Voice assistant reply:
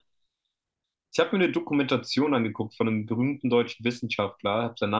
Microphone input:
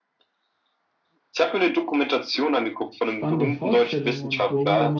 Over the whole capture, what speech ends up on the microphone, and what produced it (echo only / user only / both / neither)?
both